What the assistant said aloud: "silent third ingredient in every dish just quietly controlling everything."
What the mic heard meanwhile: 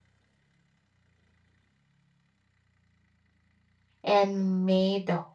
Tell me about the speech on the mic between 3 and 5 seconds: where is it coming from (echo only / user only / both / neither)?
user only